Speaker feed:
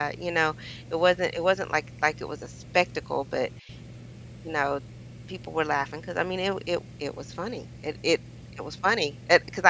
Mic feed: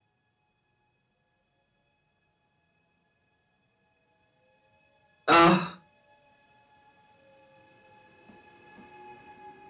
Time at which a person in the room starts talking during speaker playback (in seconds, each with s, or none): 5.3 s